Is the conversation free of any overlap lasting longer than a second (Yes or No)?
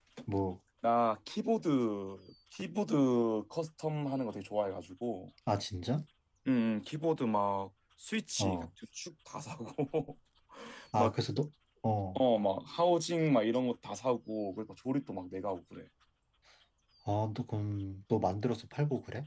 Yes